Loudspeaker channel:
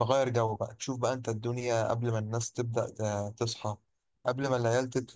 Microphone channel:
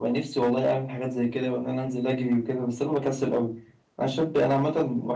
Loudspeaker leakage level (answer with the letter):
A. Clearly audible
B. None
B